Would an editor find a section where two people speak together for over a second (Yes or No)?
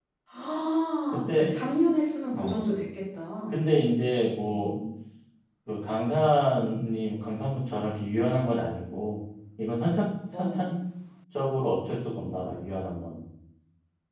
No